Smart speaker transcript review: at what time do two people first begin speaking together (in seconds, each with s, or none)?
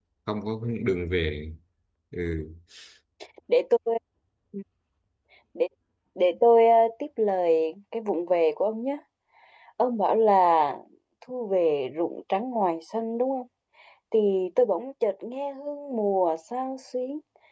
none